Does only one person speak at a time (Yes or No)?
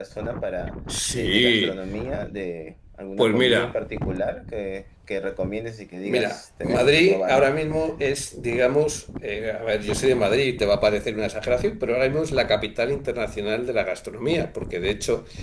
No